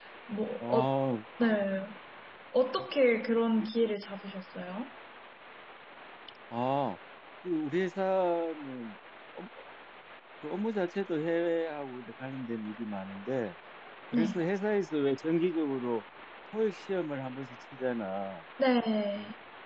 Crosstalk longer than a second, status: none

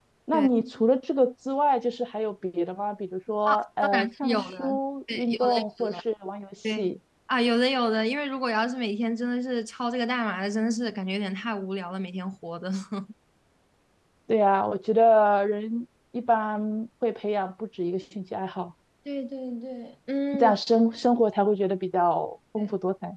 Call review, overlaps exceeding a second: present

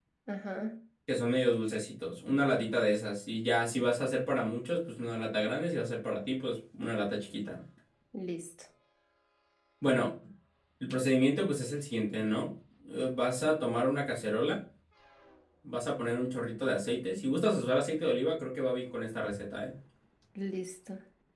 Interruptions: none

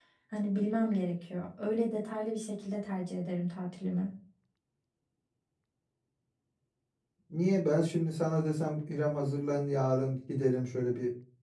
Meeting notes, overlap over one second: none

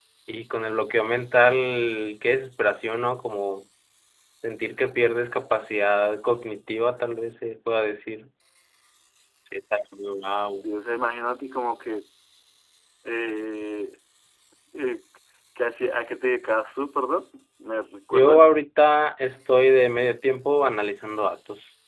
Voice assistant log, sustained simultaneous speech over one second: none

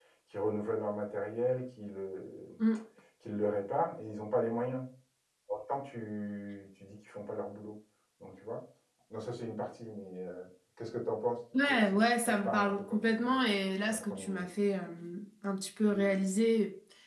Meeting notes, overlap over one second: present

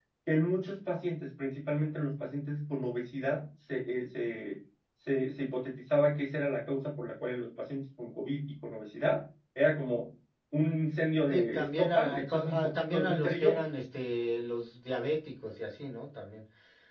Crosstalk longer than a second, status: present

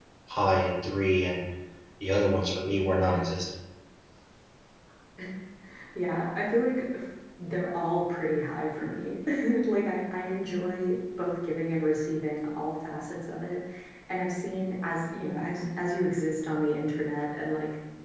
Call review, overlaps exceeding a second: none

